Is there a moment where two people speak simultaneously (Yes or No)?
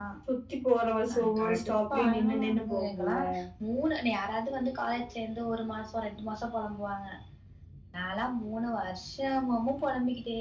Yes